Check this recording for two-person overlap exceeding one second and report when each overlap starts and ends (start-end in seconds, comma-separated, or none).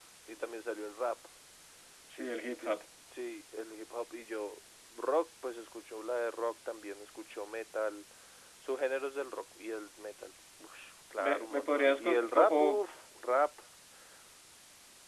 11.2-12.6